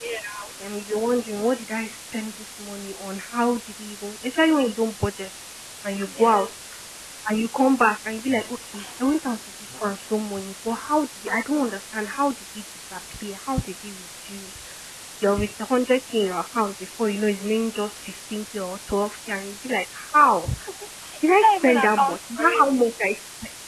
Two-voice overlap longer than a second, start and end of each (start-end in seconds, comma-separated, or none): 21.4-22.6